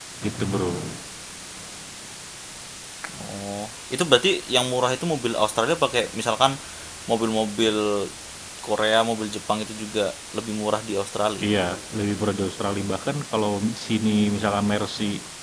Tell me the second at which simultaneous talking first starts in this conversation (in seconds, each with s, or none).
none